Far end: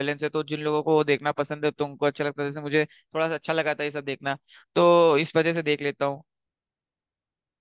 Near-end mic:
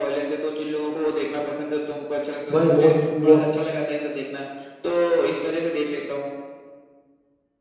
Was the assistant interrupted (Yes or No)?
Yes